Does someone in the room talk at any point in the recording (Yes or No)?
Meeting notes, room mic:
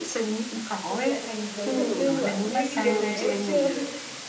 Yes